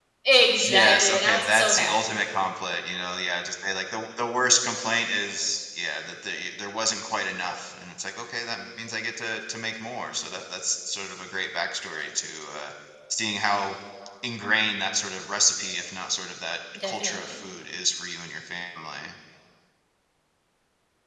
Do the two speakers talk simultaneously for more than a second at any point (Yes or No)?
Yes